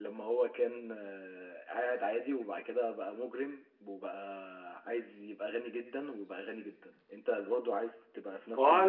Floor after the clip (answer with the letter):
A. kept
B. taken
B